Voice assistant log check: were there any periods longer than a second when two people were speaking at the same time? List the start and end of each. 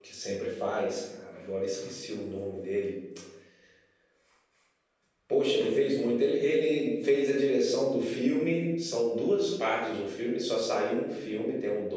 none

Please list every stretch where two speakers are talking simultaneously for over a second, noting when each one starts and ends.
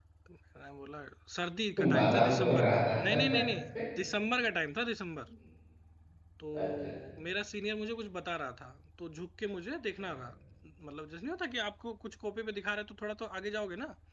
1.9-3.2

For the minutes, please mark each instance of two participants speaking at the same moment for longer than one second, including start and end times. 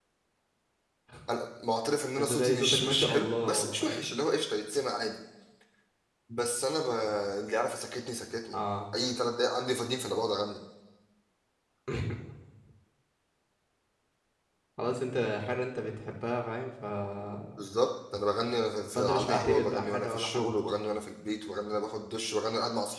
2.2-4.1, 19.0-20.5

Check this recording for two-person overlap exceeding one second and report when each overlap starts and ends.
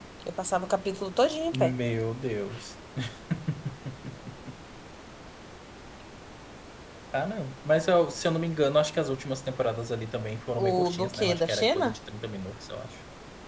10.6-12.0

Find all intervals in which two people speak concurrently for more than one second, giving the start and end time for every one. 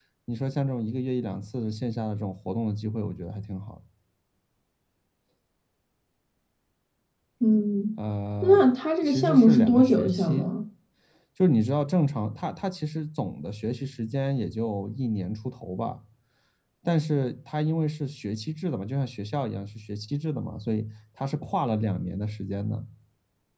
9.0-10.4

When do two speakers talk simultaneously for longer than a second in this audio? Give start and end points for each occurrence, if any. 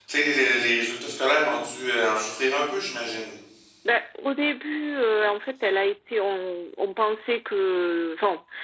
none

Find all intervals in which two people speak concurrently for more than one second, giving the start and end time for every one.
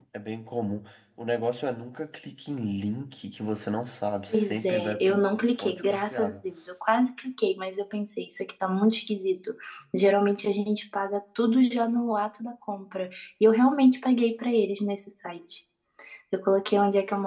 4.3-6.4

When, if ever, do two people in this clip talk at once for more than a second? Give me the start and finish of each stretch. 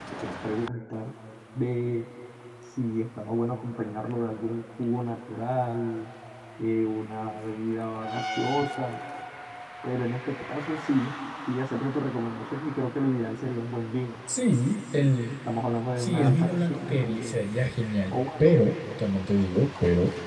16.0-17.4

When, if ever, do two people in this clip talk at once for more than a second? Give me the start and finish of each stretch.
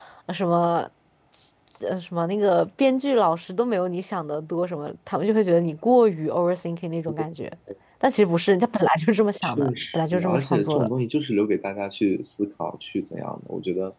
9.4-10.9

